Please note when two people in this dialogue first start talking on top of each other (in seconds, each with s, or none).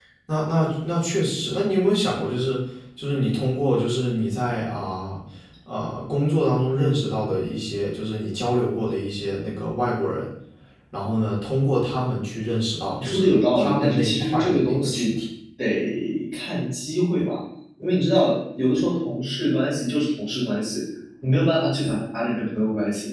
13.0 s